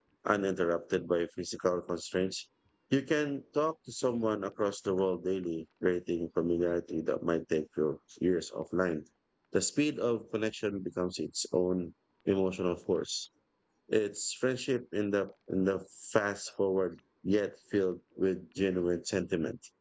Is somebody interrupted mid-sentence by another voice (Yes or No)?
No